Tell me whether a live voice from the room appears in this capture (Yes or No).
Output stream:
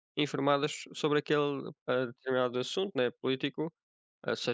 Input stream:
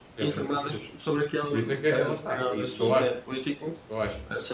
Yes